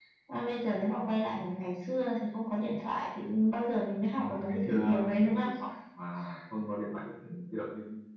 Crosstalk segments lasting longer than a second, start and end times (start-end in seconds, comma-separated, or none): 4.1-5.5